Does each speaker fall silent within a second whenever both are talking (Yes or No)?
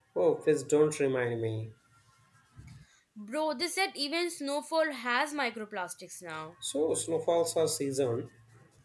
Yes